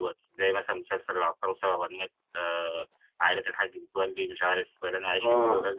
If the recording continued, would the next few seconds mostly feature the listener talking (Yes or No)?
Yes